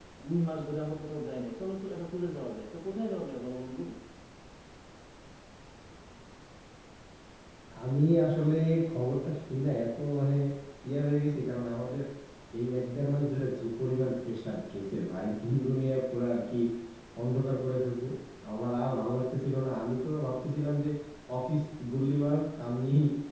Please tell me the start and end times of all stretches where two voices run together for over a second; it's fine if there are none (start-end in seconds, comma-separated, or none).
none